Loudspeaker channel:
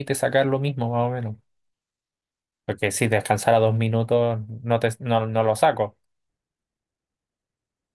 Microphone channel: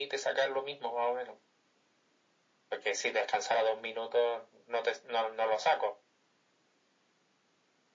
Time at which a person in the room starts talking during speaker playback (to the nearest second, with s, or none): none